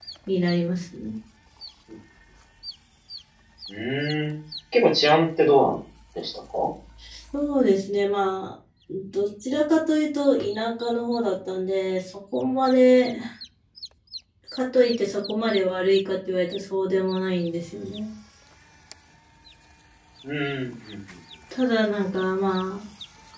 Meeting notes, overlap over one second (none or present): none